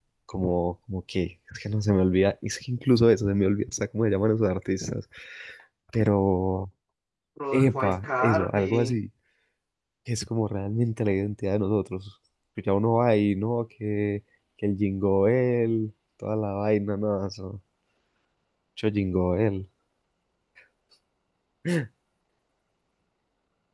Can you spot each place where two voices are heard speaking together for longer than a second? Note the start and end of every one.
7.5-8.9

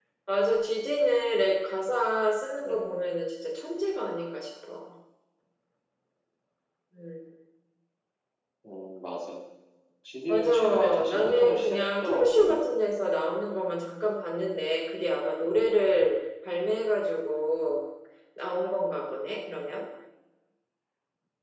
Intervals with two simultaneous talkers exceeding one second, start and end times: 10.3-12.7

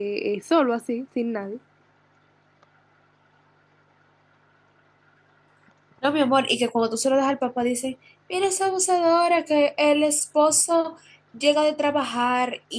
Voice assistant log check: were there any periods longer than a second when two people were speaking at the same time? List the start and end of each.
none

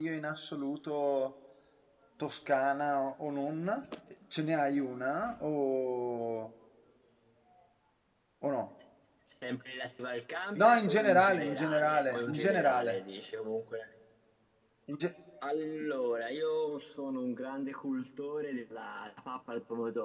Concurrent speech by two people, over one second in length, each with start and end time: 10.6-13.0

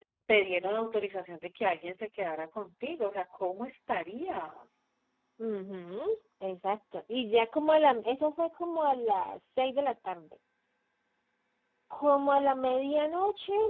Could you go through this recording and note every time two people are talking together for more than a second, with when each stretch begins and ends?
none

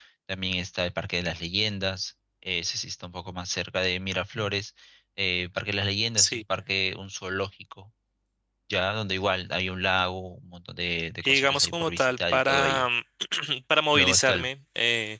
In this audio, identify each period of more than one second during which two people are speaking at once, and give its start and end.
11.2-12.9

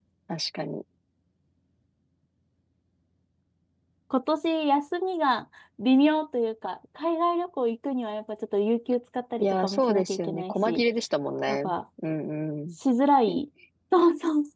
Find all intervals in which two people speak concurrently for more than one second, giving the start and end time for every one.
9.4-10.8

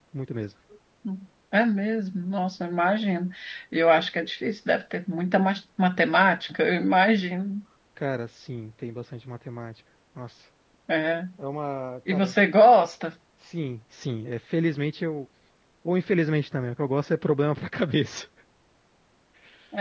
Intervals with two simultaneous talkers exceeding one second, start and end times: none

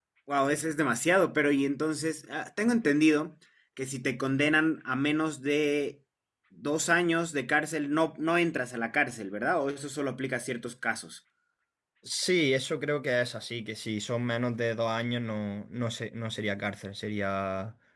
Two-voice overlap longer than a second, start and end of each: none

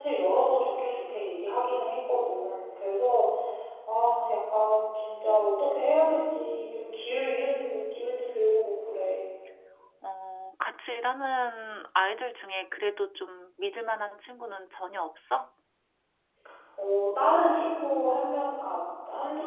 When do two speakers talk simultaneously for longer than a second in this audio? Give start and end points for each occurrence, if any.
none

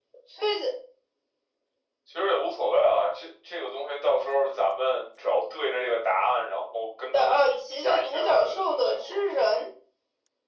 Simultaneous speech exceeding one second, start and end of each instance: 7.1-9.0

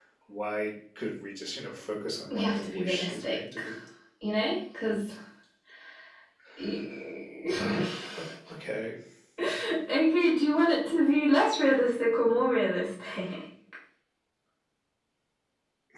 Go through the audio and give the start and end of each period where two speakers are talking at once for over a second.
2.3-3.6

